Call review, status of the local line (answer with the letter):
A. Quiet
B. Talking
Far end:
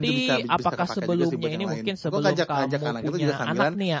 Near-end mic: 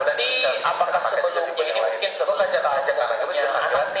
A